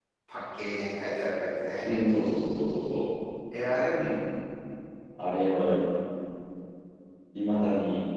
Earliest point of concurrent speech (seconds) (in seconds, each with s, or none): none